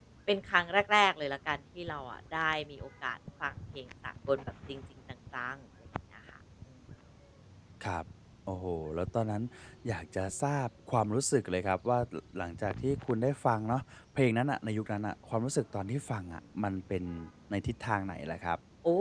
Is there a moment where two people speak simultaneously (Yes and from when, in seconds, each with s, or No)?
No